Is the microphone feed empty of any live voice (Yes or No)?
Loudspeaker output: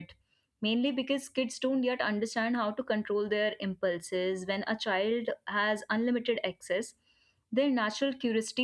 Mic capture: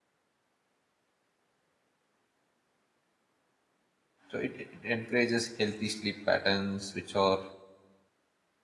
No